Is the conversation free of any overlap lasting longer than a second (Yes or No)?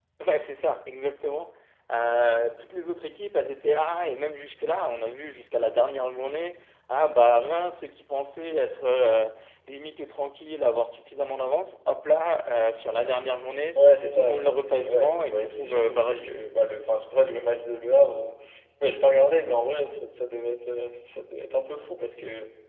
No